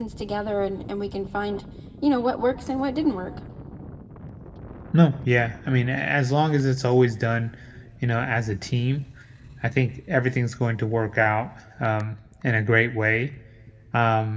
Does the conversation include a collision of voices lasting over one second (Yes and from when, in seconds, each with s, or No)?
No